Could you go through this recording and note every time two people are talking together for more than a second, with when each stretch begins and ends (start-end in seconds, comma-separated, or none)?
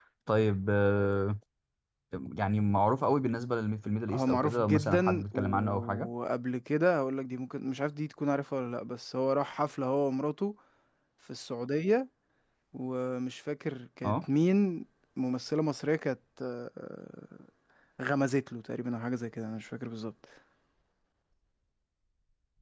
4.1-6.1